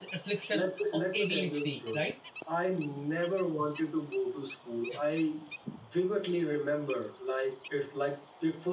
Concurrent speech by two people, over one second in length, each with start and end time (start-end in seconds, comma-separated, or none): 0.6-2.0